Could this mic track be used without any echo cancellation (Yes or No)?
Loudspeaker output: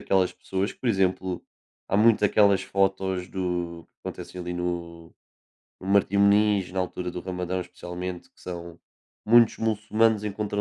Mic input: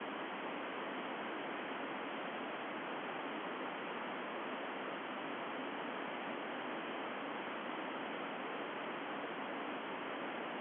Yes